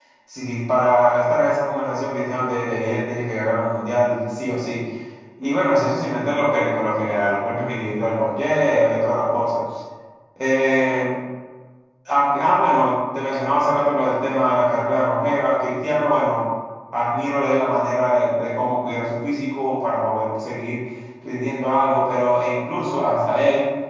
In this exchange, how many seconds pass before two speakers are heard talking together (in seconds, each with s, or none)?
none